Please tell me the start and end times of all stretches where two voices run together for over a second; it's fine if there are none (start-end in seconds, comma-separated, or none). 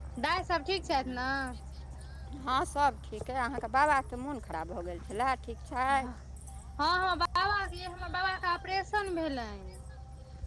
none